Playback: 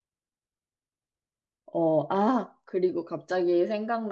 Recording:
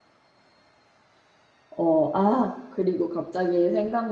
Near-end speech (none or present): none